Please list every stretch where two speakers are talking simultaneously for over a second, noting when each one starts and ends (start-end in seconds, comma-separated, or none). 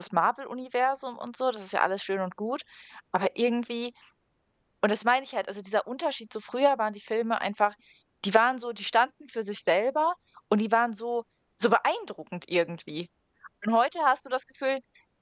none